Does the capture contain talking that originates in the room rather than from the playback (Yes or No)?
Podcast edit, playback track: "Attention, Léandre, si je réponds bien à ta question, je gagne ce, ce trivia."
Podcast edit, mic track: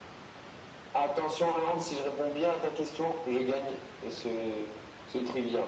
No